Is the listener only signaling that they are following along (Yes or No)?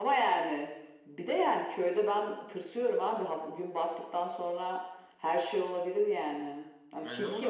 No